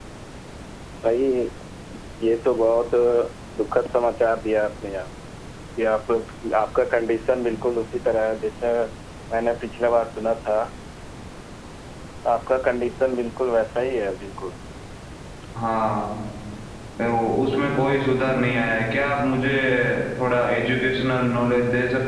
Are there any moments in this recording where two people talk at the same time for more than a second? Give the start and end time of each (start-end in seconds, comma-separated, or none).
none